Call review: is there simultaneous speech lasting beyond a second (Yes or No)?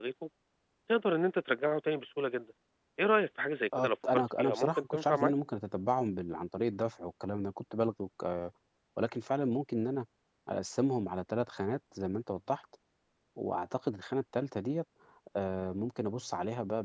Yes